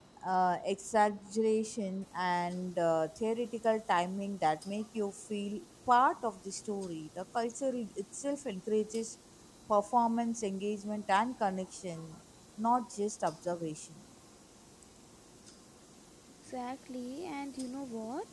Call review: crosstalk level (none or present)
none